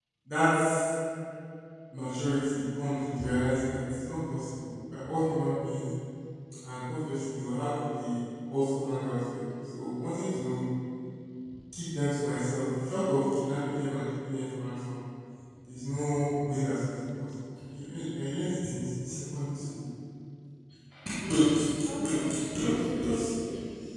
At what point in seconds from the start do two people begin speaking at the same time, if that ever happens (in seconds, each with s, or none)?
22.0 s